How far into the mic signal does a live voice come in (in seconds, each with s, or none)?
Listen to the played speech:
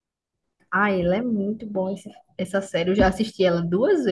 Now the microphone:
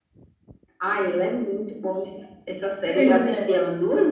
2.9 s